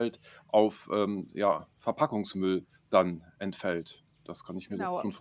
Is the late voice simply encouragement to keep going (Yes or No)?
No